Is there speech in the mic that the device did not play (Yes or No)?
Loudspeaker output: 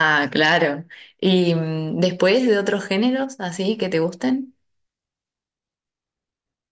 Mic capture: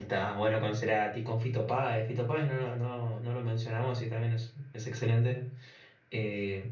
Yes